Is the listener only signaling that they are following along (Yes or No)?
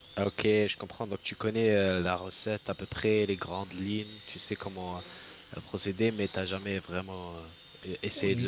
No